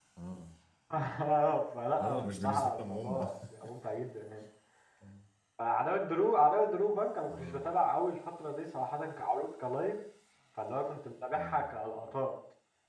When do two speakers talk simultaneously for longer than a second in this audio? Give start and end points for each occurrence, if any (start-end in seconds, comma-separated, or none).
2.0-3.3